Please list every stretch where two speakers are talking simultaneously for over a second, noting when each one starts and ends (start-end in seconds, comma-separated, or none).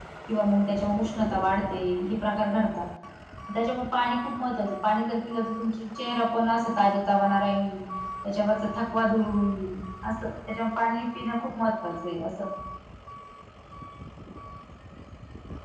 none